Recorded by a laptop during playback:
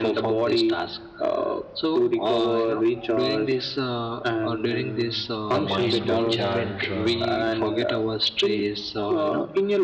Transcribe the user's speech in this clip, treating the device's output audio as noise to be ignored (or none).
the mind recharge uh,